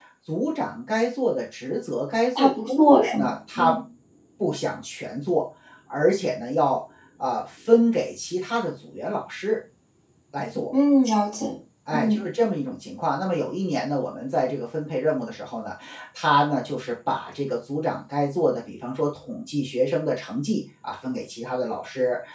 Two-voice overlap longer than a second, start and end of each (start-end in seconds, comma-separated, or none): 2.4-3.7